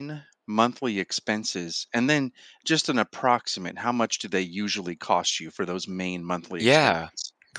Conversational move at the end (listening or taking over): taking over